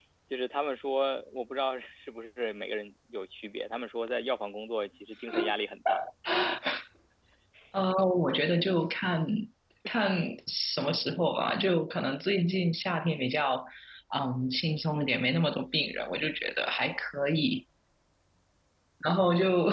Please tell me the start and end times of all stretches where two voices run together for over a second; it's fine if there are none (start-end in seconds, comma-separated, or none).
none